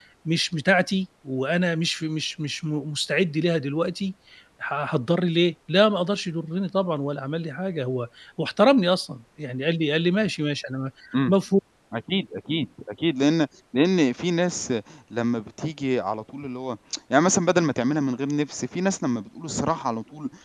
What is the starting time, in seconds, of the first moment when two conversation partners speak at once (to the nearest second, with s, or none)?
none